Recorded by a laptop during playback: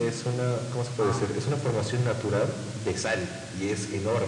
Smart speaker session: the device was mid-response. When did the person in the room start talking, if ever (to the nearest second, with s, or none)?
1 s